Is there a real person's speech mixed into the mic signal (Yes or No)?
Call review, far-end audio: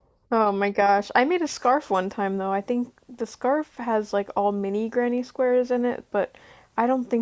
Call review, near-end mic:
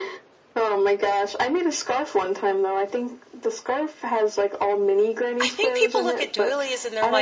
Yes